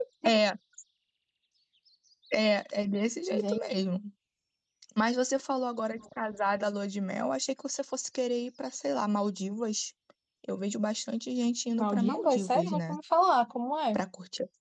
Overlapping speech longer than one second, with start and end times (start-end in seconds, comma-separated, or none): 11.8-13.0